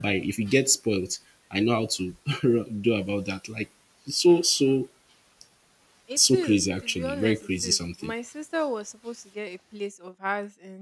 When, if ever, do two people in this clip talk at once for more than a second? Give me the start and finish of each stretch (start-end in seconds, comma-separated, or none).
6.2-8.1